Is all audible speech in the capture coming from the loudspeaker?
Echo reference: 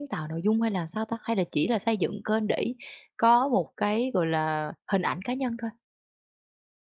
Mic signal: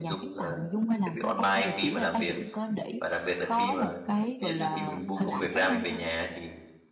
No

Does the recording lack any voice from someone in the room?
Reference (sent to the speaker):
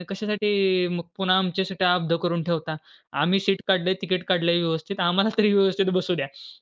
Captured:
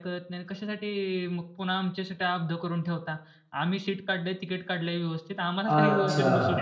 No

